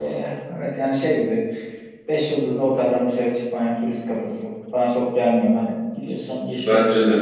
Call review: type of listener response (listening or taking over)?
taking over